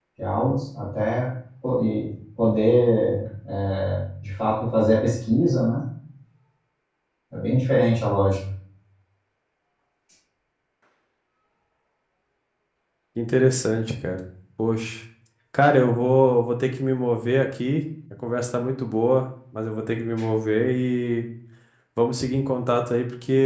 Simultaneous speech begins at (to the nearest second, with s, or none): none